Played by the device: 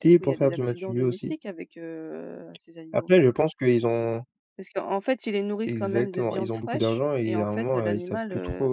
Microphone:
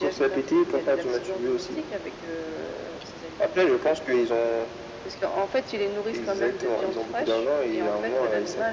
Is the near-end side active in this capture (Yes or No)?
No